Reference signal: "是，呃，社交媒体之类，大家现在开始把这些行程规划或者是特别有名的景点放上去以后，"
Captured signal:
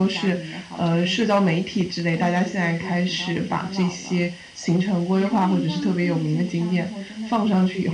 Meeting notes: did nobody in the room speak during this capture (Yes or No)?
No